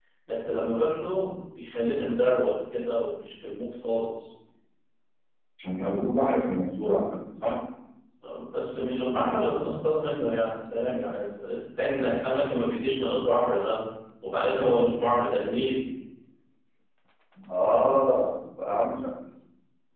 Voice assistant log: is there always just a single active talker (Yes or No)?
Yes